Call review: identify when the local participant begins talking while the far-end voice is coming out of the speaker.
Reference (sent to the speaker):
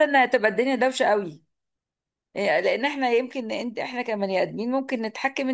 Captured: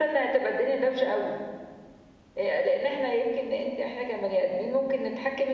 none

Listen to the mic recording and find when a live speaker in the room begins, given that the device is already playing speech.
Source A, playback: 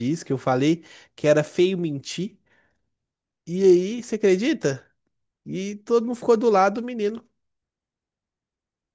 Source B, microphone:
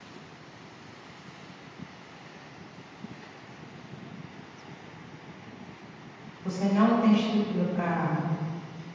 6.4 s

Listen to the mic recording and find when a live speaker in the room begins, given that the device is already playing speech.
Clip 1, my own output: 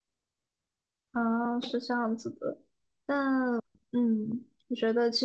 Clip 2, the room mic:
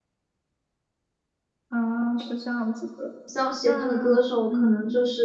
3.2 s

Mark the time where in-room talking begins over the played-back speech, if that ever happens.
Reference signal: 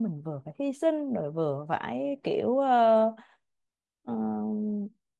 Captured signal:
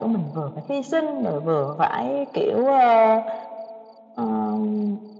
none

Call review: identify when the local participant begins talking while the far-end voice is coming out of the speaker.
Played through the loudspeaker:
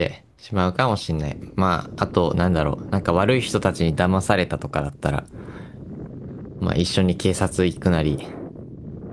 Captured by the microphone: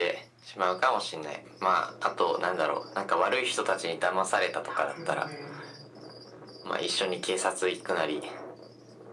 4.6 s

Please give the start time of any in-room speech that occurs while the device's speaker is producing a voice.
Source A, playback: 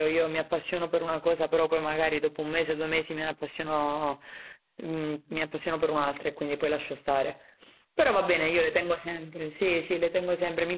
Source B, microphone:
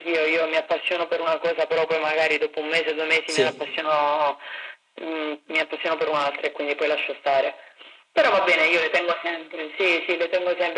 3.2 s

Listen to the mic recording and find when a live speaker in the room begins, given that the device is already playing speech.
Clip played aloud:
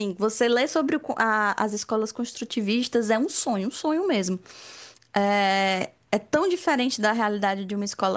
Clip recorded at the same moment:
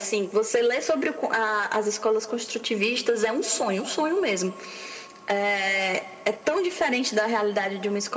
none

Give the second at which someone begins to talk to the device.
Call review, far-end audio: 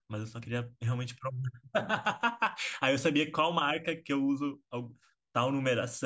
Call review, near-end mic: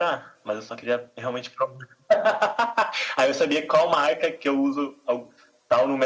none

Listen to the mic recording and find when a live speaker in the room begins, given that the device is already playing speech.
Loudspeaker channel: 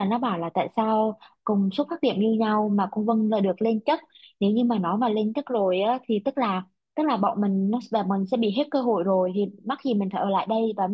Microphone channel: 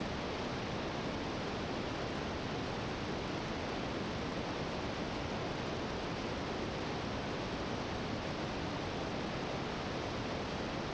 none

